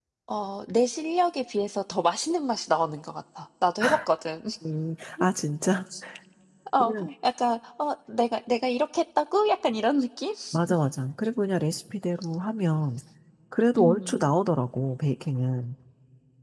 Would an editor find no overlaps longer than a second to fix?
Yes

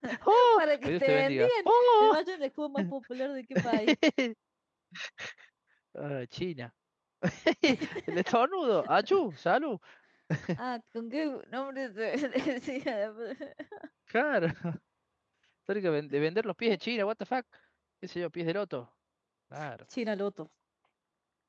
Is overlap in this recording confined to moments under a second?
No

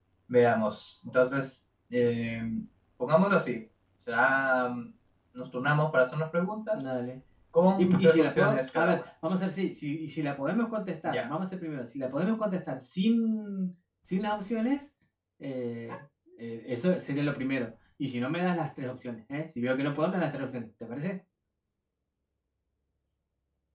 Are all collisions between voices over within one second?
No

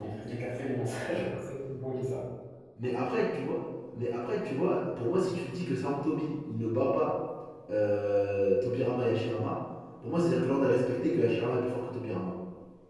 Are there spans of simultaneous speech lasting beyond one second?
No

